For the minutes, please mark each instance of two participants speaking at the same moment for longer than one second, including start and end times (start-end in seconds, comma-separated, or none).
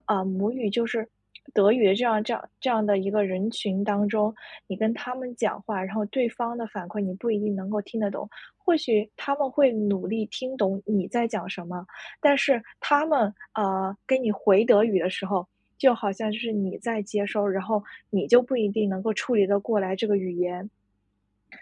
none